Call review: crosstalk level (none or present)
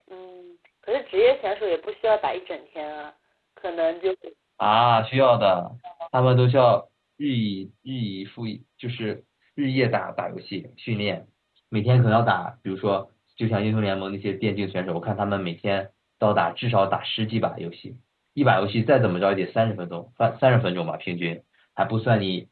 none